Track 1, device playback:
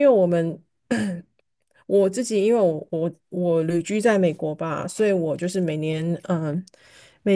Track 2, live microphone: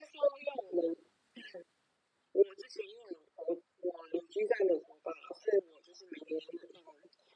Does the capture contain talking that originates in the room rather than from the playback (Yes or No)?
No